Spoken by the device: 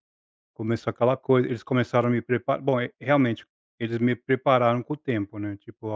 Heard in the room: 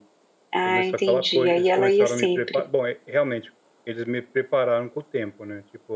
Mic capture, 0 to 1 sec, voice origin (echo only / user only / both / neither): both